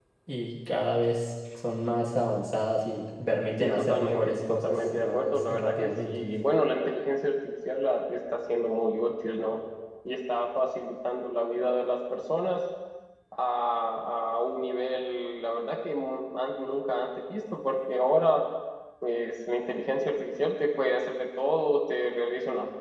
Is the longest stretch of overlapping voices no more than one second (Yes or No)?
No